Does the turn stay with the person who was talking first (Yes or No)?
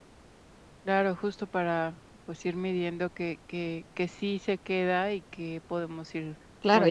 No